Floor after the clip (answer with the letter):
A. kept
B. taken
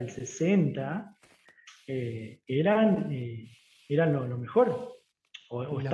A